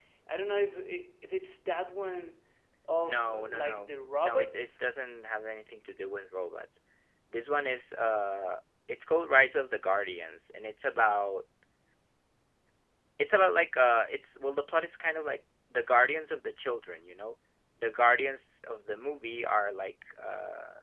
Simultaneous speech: Yes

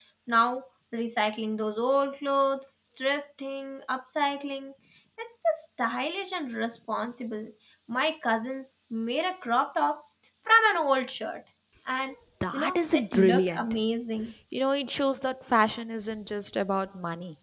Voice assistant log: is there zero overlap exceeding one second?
No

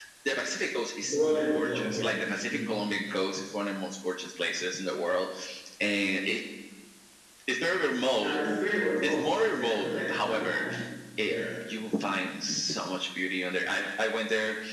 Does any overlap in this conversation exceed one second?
Yes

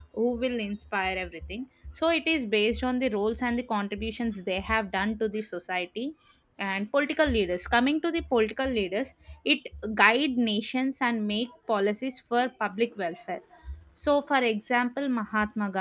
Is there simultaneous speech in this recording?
No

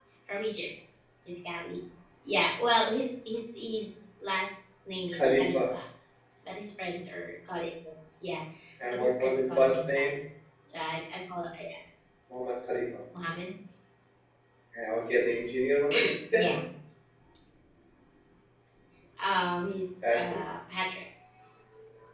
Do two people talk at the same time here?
Yes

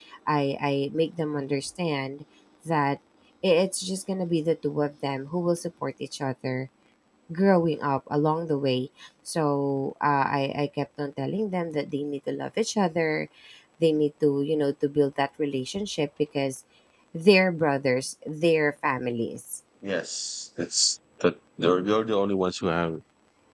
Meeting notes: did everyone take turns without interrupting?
Yes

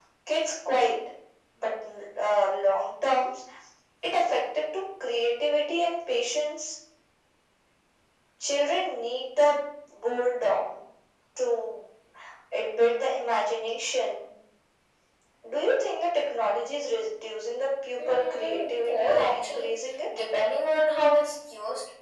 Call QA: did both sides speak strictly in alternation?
No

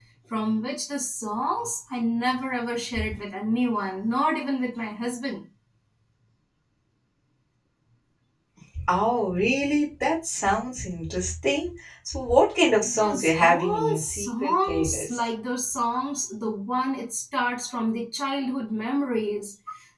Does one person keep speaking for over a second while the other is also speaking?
Yes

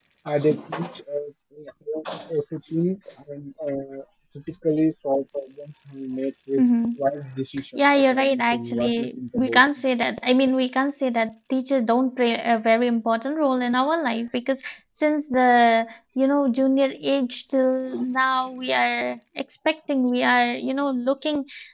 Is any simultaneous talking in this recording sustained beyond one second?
Yes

